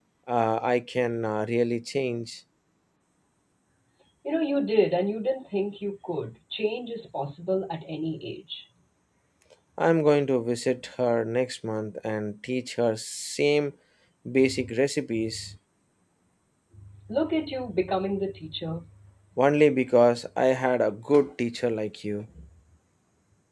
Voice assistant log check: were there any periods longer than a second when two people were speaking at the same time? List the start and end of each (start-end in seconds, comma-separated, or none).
none